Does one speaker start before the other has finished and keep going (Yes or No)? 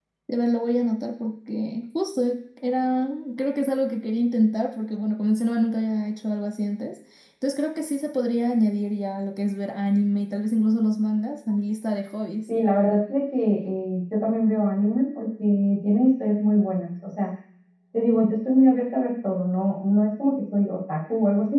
No